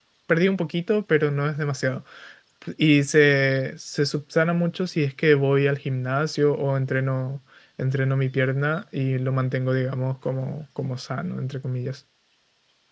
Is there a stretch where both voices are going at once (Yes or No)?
No